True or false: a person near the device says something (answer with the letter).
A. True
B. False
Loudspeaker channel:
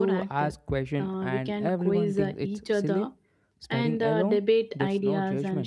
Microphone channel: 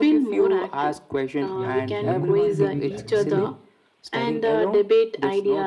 A